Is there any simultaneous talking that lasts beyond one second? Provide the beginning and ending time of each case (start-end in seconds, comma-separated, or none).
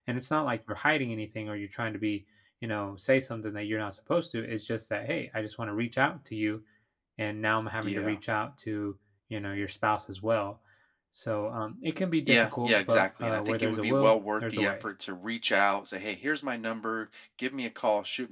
12.3-14.9